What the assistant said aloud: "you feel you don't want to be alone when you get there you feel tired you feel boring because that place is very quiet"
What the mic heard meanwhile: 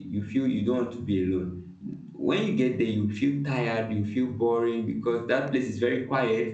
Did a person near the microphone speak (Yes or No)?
No